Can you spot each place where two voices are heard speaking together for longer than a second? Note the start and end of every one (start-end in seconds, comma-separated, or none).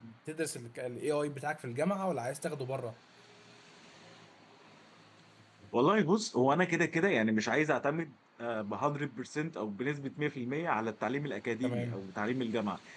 none